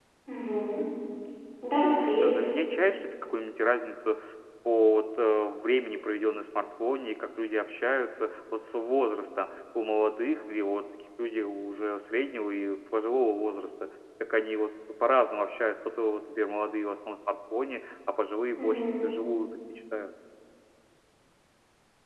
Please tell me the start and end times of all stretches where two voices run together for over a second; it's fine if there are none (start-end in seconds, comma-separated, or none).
none